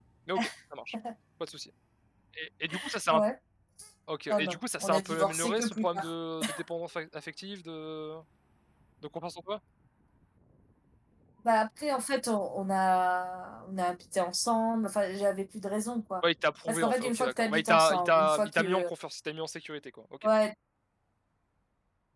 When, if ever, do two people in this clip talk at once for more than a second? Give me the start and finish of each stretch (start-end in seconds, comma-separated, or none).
4.3-6.1, 16.7-18.9